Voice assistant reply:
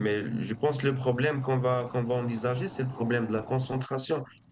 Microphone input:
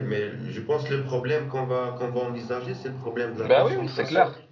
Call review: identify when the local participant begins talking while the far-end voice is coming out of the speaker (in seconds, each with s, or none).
3.4 s